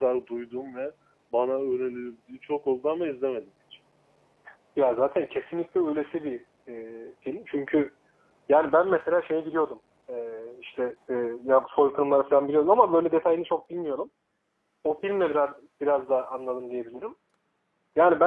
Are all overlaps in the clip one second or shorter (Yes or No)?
Yes